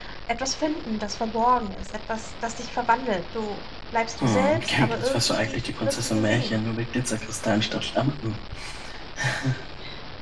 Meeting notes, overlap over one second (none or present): present